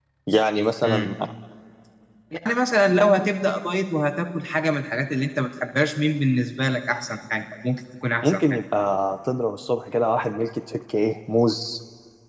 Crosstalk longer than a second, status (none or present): none